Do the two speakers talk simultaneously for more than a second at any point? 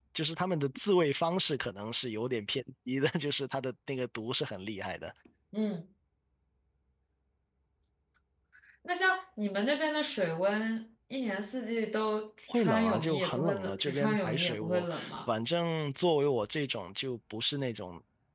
Yes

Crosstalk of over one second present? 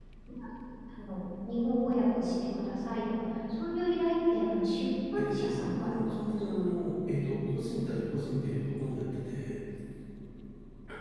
Yes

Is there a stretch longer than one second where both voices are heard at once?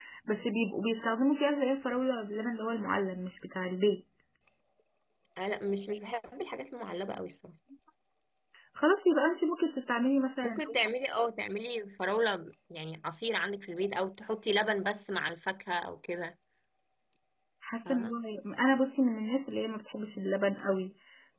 No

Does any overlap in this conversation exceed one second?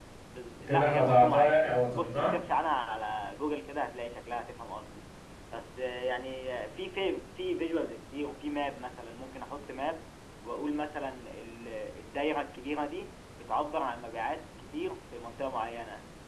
Yes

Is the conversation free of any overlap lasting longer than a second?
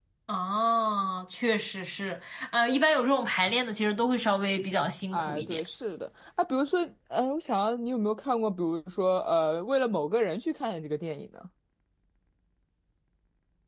Yes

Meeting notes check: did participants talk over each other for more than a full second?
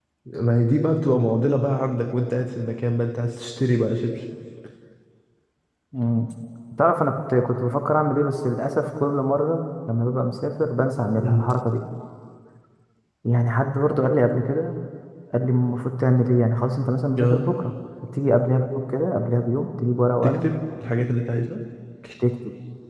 No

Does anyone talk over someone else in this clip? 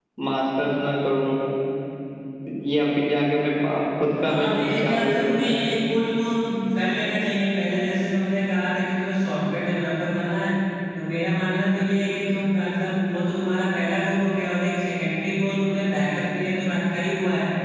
Yes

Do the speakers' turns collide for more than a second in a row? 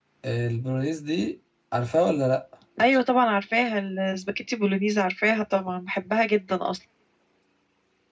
No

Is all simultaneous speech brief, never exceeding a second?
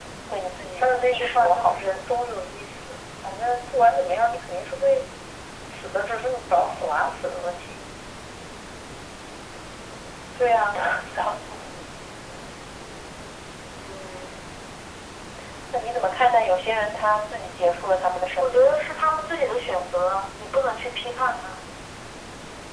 No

